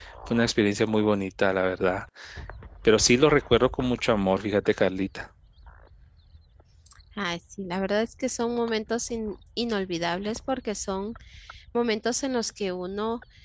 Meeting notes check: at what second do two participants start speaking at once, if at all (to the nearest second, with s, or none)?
none